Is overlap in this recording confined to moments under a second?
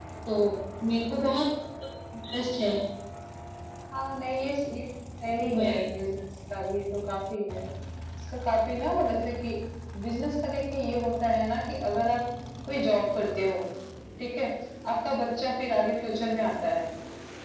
Yes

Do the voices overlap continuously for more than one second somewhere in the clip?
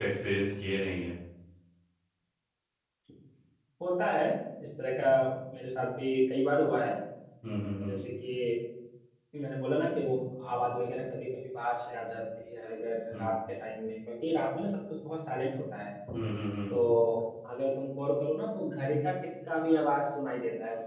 No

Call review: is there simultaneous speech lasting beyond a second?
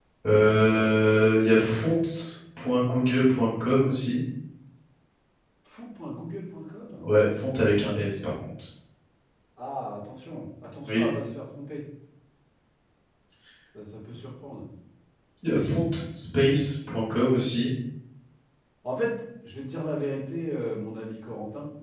No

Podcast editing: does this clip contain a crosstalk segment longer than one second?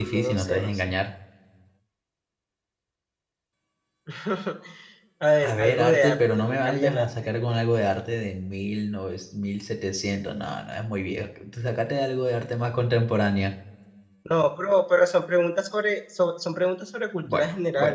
Yes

